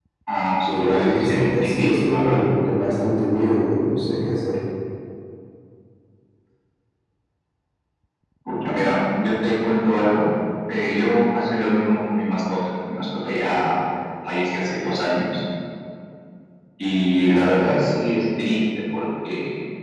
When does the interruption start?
1 s

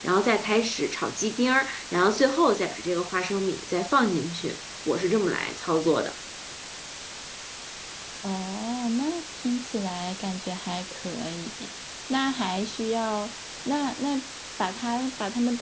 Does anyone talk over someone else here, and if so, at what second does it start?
none

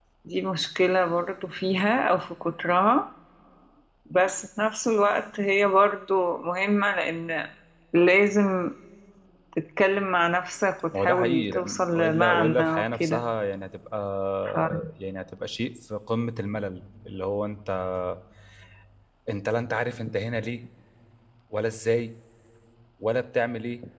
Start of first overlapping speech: 11 s

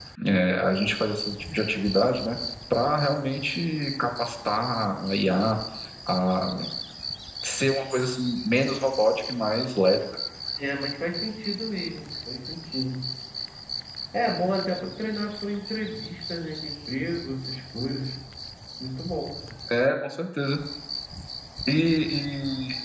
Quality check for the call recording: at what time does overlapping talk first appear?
none

